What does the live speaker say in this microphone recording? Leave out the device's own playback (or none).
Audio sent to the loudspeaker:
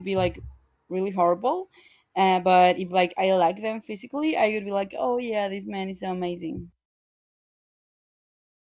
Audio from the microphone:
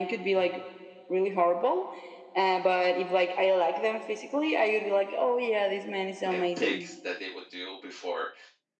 and picks that they would do before